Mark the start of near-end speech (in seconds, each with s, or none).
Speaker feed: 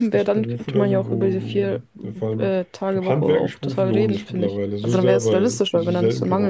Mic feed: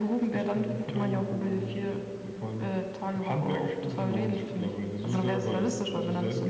none